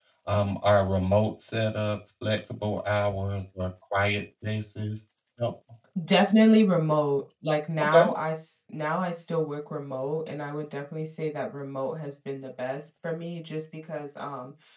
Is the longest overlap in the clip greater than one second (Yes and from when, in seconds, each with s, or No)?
No